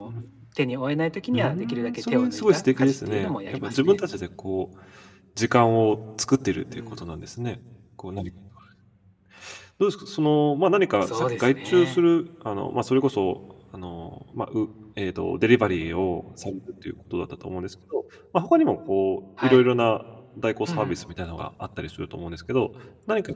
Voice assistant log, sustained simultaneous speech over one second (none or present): present